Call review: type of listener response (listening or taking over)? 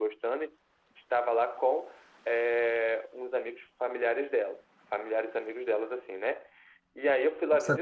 taking over